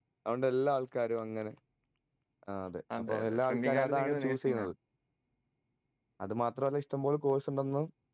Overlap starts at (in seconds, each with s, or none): 3.1 s